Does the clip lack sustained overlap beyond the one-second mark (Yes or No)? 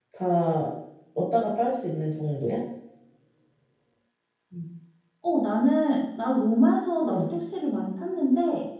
Yes